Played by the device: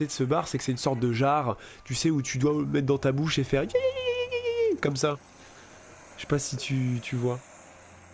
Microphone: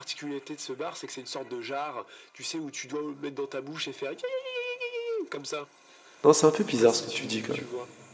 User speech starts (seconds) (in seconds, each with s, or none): 6.2 s